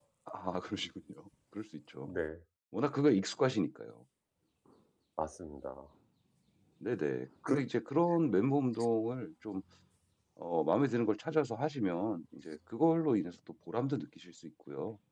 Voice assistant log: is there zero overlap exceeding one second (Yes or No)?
Yes